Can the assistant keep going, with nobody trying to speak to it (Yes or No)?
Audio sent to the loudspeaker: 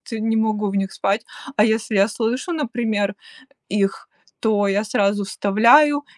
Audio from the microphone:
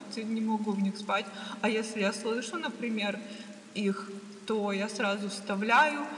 Yes